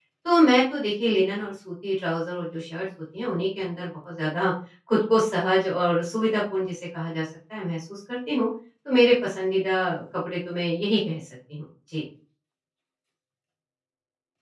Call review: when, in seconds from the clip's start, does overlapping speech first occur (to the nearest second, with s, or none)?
none